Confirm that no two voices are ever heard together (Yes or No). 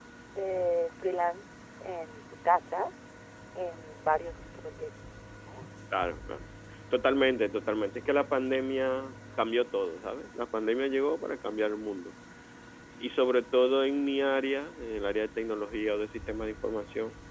Yes